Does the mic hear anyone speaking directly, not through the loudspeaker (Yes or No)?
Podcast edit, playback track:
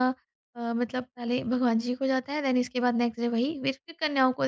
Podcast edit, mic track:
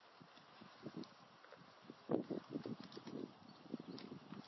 No